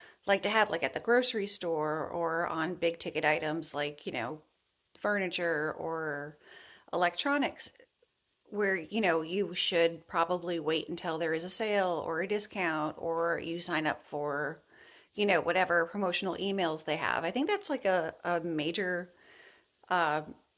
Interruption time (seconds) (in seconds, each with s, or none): none